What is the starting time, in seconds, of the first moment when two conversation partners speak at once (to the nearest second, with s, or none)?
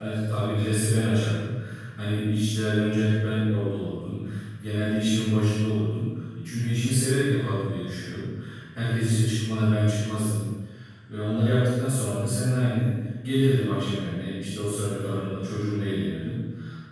none